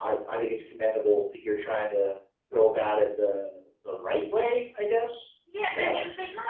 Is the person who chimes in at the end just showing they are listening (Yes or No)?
No